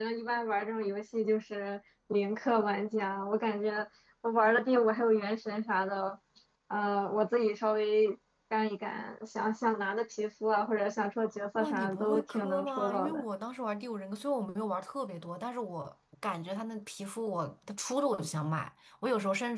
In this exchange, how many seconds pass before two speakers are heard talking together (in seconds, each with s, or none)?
11.6 s